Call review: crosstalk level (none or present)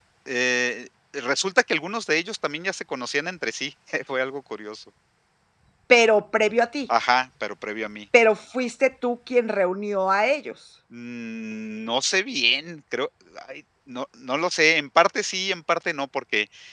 none